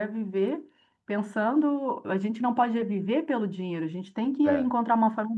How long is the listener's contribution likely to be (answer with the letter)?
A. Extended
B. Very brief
B